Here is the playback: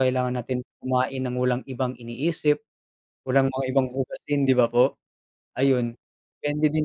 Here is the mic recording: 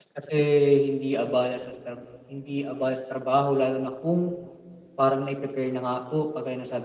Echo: none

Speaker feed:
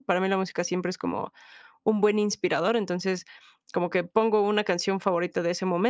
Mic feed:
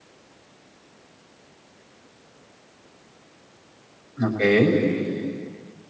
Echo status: none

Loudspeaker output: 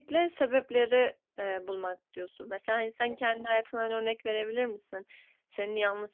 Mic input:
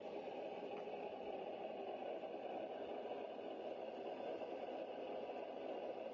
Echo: none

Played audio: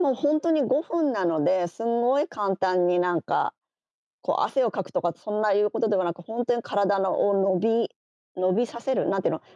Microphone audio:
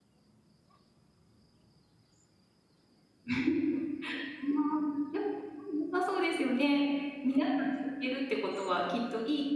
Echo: none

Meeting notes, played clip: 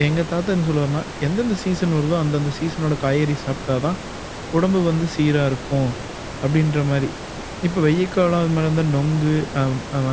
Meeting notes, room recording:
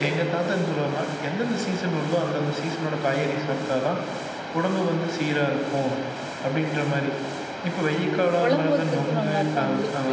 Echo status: present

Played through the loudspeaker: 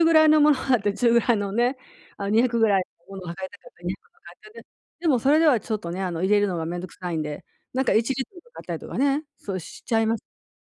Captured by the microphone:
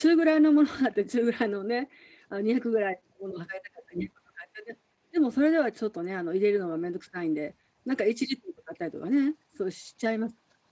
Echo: present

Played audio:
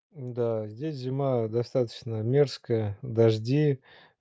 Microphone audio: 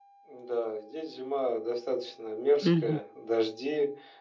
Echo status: present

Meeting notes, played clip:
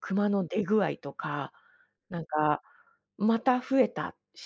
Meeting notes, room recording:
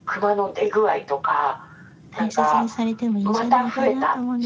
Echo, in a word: present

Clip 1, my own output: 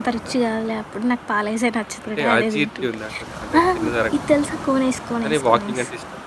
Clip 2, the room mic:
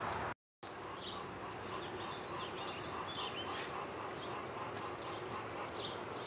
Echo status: none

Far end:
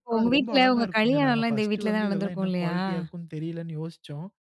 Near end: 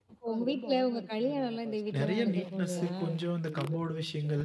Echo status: present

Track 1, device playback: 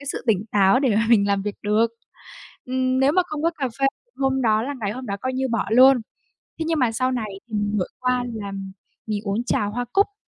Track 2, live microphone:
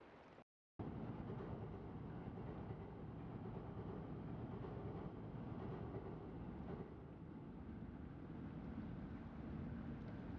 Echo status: none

